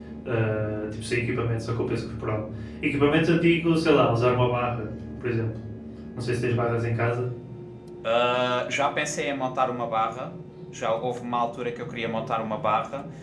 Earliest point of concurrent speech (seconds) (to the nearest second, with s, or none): none